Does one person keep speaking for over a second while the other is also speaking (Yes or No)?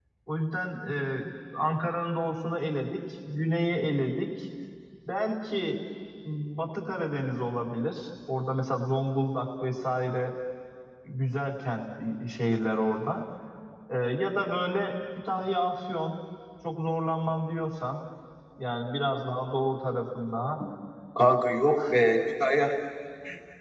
No